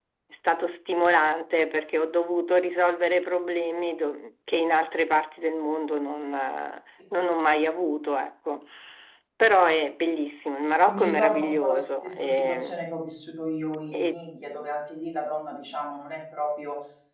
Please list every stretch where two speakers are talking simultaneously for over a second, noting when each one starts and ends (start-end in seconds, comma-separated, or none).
10.8-12.8